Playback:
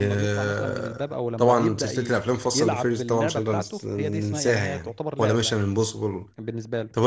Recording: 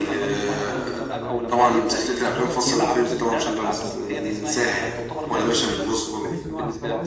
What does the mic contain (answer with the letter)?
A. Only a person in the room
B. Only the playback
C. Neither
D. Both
D